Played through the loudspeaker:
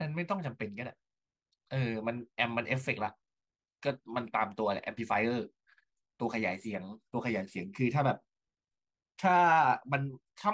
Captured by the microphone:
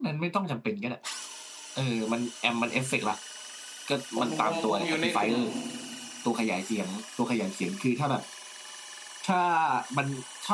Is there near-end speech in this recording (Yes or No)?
Yes